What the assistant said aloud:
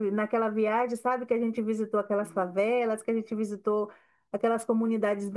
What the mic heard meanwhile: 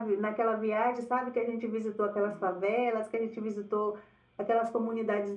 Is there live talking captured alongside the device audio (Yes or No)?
No